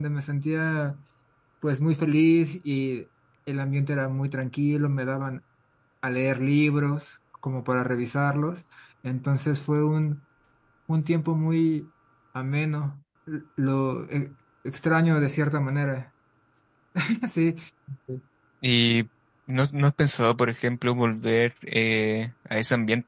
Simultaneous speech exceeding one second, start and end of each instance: none

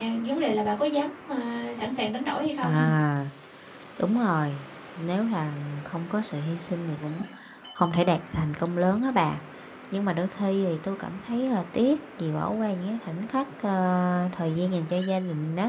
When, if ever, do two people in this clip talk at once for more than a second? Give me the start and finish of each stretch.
none

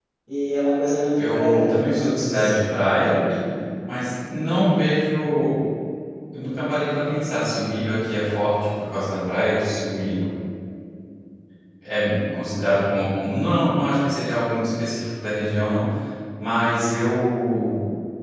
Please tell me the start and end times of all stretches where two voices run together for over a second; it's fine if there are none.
1.2-2.6

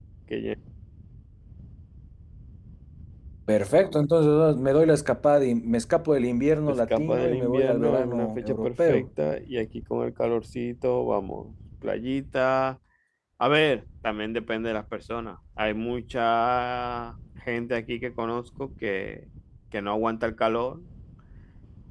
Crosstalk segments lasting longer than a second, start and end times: 6.7-9.1

